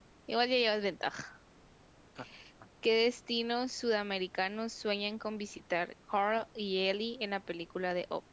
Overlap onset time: none

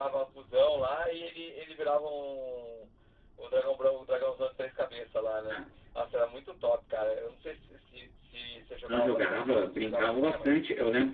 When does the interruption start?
8.9 s

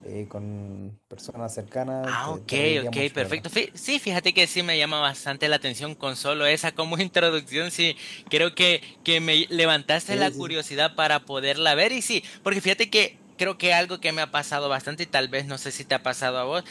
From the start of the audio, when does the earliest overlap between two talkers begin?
2.1 s

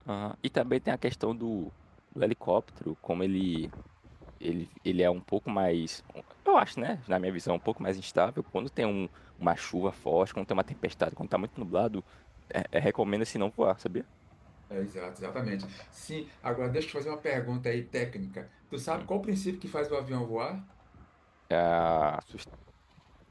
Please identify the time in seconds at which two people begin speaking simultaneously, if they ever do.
none

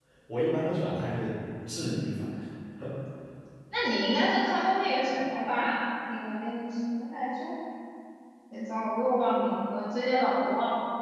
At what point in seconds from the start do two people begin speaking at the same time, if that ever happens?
none

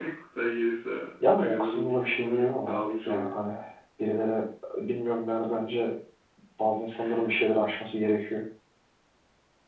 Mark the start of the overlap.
1.2 s

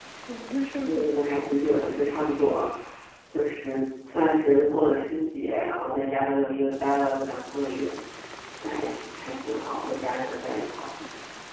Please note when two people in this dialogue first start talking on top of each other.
0.8 s

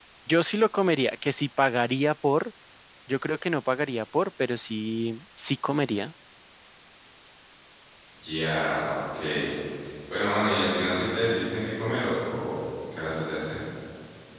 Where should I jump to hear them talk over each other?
none

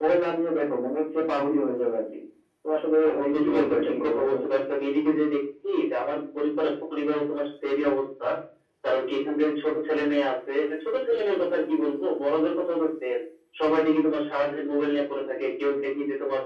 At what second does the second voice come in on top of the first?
3.0 s

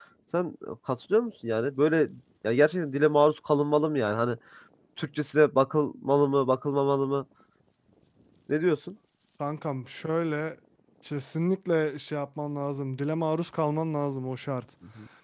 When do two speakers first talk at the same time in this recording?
none

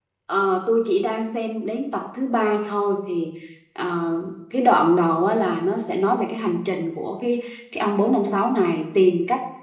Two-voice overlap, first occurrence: none

